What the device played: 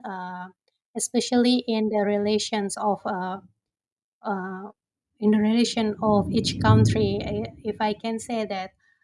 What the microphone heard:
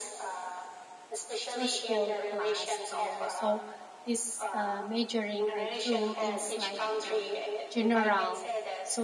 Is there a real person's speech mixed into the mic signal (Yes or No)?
Yes